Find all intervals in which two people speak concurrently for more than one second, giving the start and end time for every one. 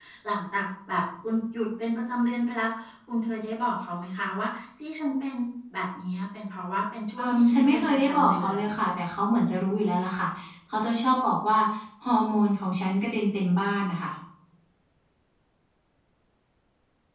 7.2-8.6

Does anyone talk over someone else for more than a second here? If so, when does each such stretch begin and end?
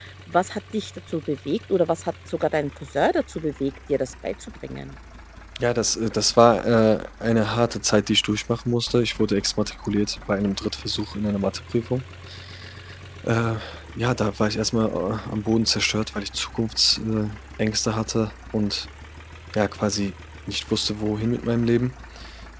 none

